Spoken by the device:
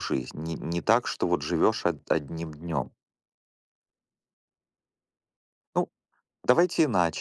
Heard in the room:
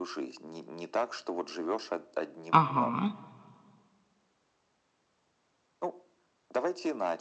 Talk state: both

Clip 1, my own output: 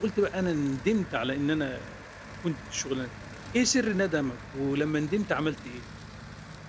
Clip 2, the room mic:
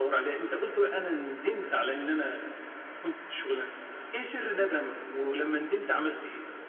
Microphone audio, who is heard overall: echo only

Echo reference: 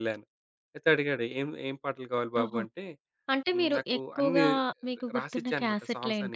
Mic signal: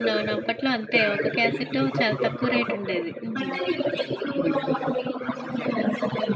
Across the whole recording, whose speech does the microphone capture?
both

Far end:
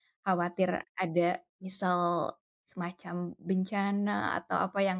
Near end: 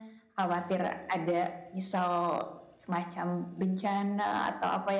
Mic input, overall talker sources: echo only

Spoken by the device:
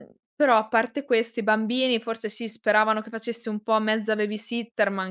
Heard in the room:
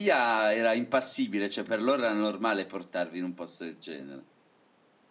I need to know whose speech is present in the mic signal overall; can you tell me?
user only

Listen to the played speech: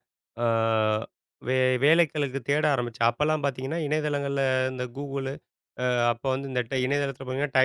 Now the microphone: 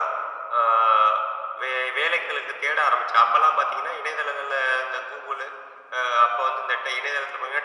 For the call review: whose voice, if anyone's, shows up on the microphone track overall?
echo only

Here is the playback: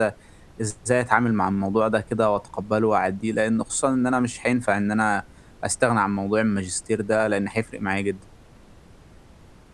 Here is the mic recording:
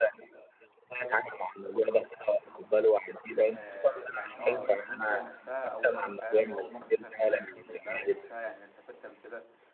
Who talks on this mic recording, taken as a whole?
both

